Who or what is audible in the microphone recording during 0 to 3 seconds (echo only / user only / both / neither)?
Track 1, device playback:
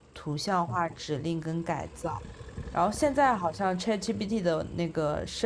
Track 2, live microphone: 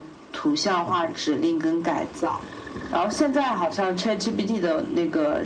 echo only